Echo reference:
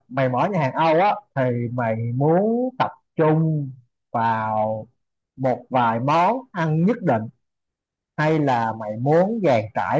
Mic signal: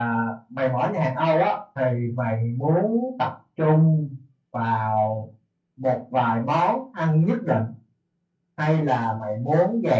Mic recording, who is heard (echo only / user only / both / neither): echo only